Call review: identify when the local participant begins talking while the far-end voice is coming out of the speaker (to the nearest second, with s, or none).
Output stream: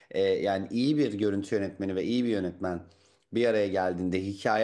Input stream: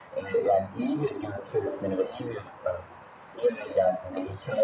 none